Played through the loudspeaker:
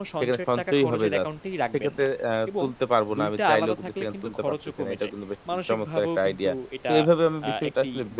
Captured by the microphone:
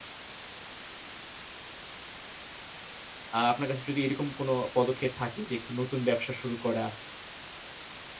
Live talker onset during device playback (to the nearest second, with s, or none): 3 s